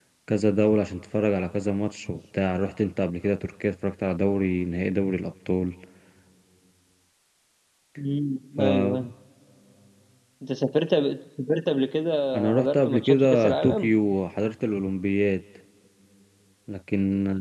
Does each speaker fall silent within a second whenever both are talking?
No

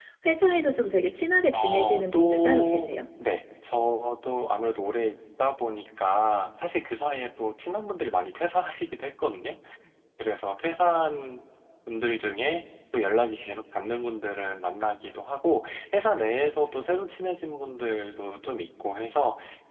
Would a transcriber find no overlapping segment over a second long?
No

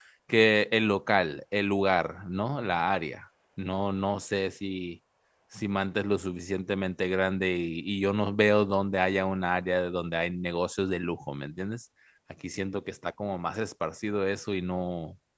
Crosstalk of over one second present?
No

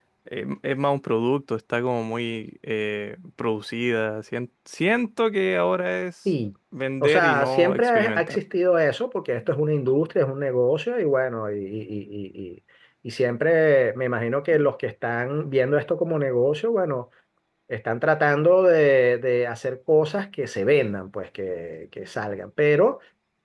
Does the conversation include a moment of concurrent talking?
Yes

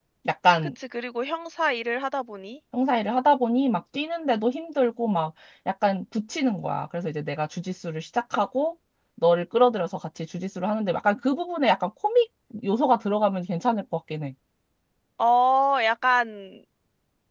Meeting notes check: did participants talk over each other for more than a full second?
No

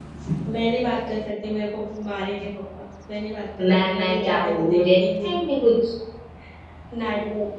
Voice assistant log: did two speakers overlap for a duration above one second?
Yes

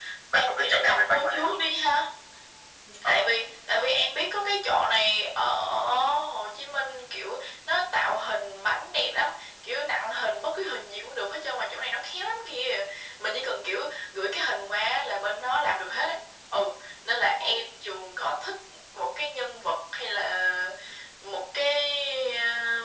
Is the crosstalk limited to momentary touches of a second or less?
No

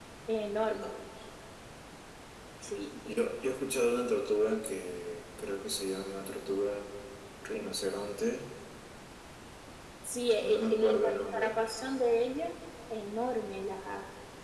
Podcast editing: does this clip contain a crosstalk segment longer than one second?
Yes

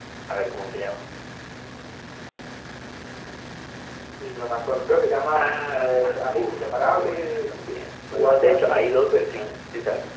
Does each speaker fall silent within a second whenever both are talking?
No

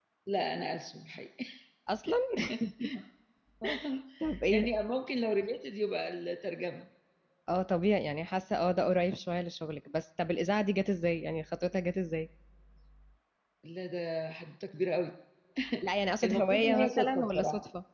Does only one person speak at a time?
No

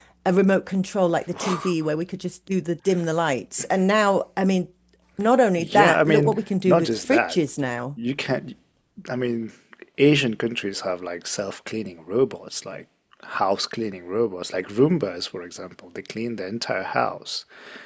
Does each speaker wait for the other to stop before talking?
No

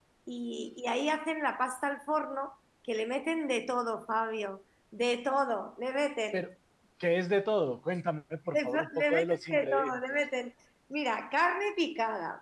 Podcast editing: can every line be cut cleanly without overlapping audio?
No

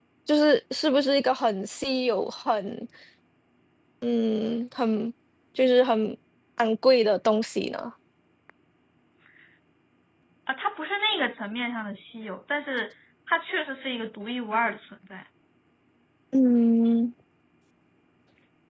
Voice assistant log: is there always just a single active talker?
Yes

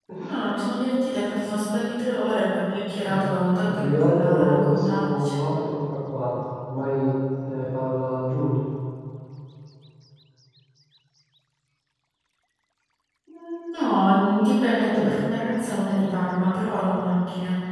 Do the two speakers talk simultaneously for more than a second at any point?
Yes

